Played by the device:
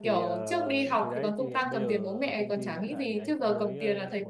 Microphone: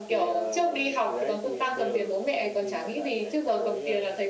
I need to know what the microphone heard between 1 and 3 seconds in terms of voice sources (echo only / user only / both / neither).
echo only